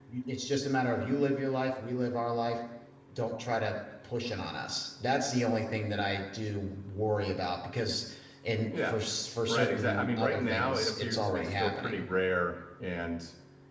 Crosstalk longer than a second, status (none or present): present